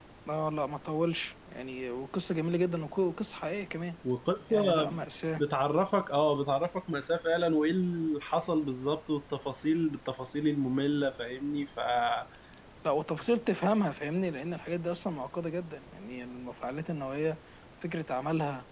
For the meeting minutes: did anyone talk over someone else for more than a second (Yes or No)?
No